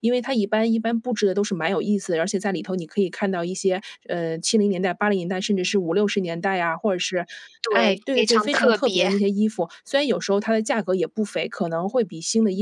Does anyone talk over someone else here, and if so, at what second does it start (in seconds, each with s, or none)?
7.7 s